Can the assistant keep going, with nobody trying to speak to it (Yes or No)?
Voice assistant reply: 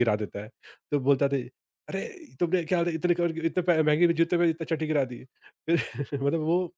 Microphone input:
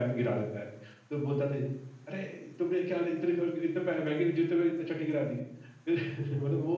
Yes